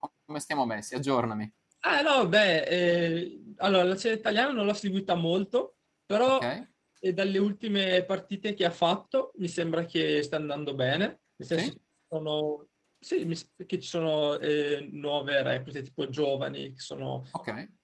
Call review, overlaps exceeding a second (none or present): none